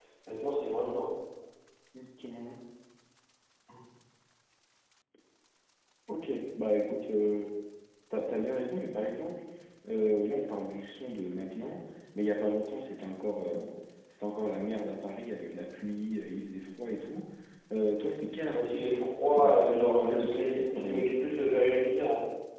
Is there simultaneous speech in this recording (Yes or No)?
Yes